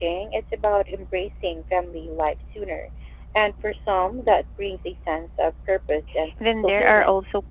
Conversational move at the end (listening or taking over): taking over